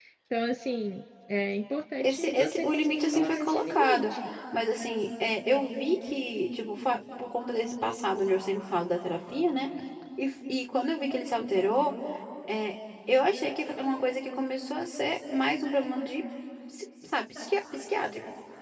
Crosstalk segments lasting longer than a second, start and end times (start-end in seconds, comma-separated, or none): 2.0-4.1